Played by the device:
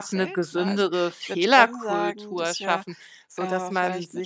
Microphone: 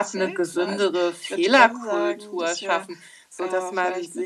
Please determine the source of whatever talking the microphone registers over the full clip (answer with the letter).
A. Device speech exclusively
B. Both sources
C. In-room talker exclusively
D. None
A